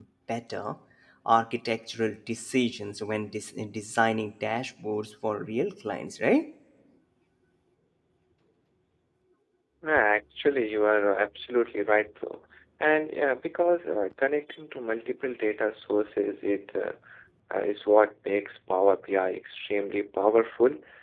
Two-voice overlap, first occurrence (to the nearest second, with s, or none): none